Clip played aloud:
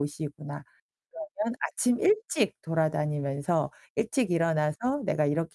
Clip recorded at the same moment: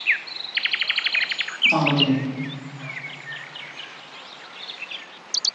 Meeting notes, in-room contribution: present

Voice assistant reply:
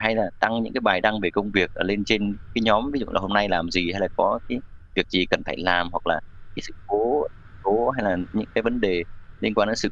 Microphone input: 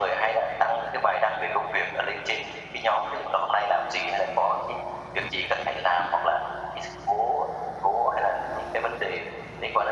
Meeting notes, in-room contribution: none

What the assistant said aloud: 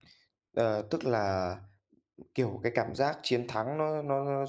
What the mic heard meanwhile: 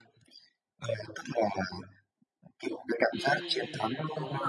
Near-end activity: present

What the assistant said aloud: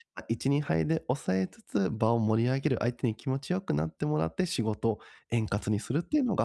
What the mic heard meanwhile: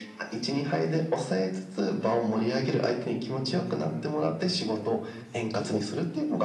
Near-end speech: present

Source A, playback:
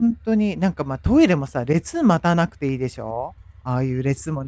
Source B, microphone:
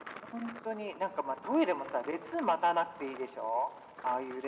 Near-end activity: none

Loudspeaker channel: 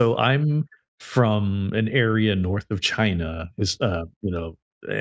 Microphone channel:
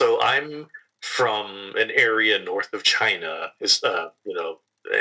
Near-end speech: none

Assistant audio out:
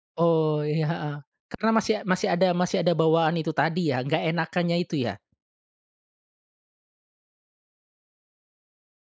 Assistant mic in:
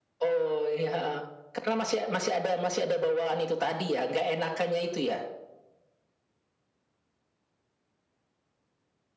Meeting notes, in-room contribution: none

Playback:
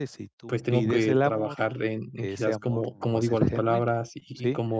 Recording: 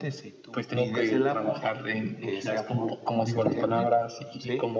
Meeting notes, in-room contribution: none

